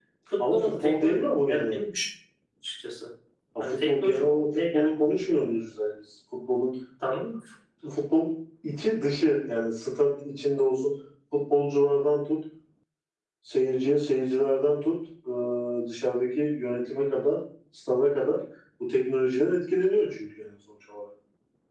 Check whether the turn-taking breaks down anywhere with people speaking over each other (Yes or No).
Yes